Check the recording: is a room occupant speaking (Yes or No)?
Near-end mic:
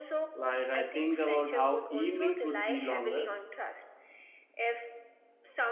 Yes